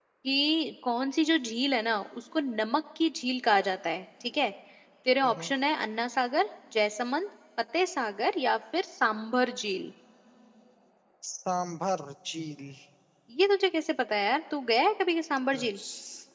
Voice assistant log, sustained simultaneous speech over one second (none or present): none